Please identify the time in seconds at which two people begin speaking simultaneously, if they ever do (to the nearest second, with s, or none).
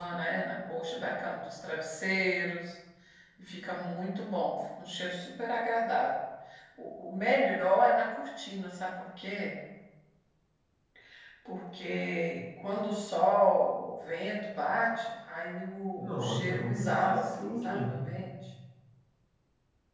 16 s